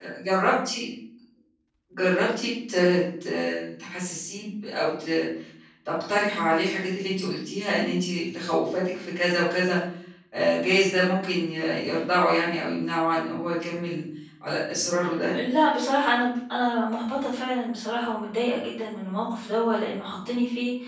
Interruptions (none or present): none